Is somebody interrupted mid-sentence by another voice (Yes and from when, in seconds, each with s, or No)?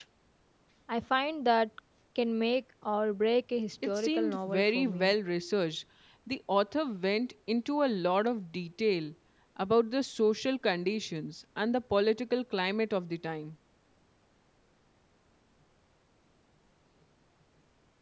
Yes, from 3.8 s